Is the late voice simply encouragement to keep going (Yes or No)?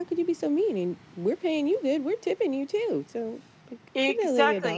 No